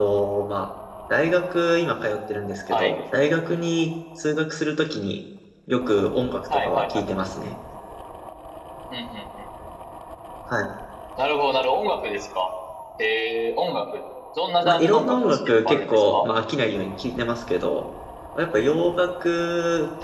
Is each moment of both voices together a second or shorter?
No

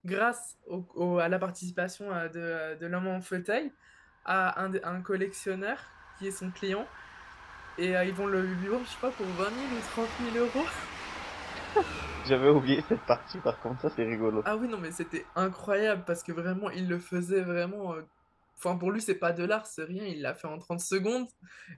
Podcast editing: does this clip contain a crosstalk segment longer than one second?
No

